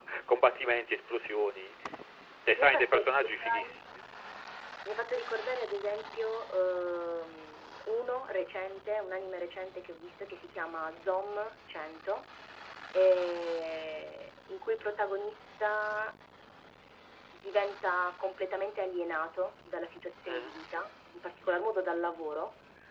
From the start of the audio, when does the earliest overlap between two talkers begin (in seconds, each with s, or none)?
2.6 s